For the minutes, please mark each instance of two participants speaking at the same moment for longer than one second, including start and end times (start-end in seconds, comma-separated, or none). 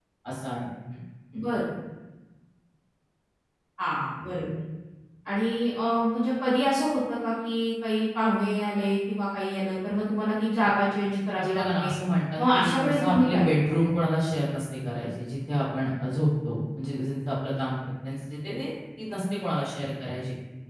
12.4-13.9